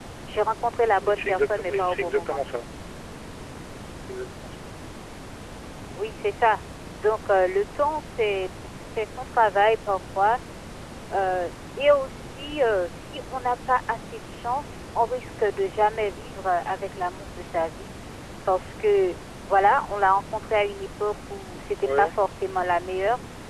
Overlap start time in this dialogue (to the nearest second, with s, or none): 1 s